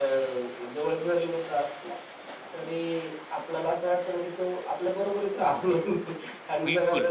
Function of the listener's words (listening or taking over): listening